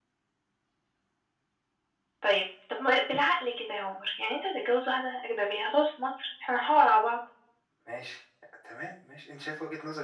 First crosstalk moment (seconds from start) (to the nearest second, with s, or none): none